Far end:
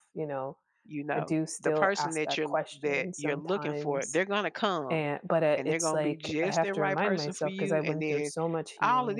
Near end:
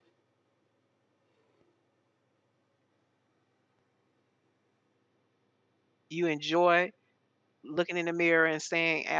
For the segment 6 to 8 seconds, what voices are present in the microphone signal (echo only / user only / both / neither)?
user only